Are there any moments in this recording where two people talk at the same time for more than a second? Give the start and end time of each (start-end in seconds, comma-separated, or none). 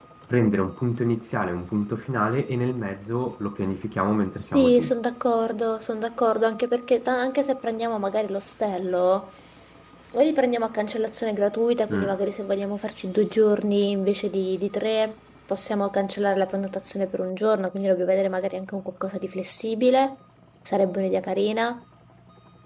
none